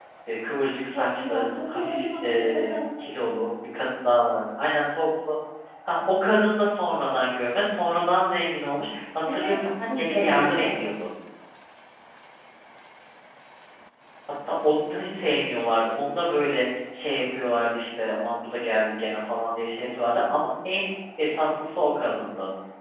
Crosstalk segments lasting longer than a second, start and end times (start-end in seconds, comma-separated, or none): 0.9-2.7, 9.3-10.9